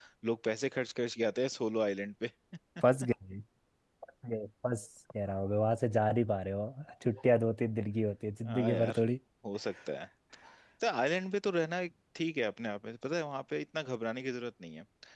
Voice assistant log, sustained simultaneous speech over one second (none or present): none